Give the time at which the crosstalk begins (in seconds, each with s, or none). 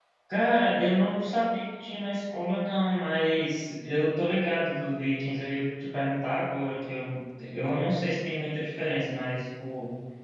none